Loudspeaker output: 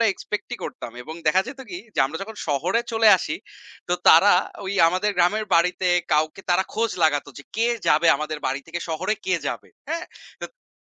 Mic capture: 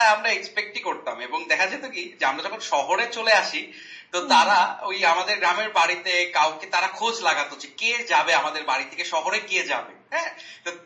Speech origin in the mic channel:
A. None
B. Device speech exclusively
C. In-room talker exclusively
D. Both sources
D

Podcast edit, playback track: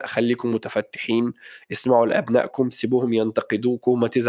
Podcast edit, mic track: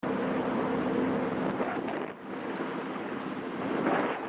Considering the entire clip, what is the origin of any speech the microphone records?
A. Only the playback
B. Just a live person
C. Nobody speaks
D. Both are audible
C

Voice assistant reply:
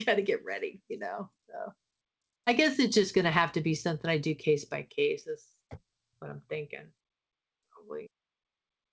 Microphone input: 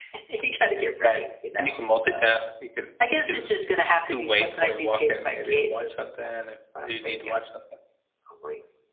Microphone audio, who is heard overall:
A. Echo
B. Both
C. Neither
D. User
B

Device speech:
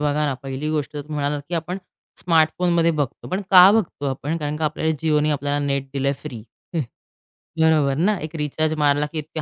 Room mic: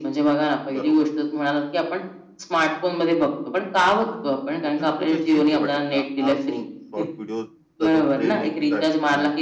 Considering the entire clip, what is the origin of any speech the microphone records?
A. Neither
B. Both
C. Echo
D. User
B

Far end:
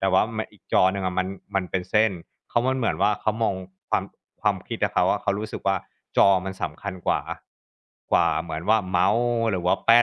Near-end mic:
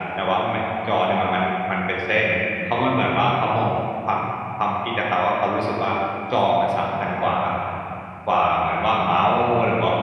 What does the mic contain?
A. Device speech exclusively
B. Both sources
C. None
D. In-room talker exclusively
A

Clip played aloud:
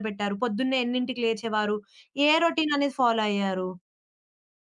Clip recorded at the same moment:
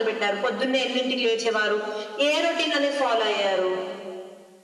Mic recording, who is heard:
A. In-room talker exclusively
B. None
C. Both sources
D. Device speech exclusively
D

